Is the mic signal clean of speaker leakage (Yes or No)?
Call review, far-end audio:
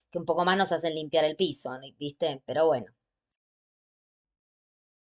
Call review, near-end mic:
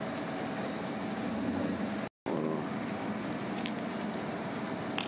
Yes